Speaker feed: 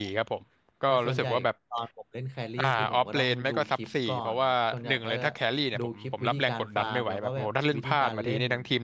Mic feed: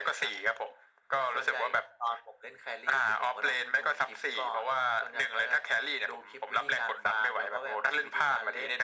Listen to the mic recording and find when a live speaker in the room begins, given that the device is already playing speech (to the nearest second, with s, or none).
none